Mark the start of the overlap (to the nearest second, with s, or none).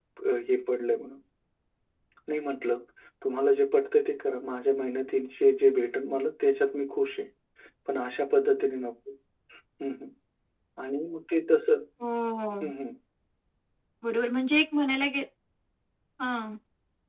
none